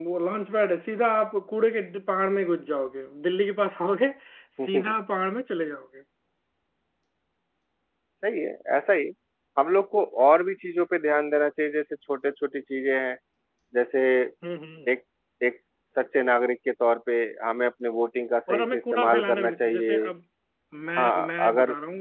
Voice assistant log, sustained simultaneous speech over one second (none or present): present